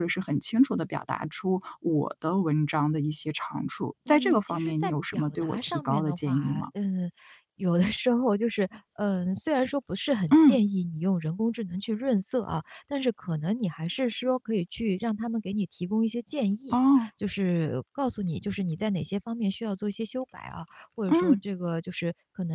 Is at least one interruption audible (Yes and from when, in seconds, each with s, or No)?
Yes, from 4.1 s